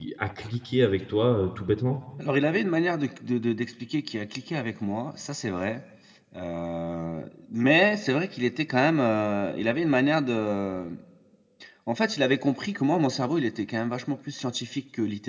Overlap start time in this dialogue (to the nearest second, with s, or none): none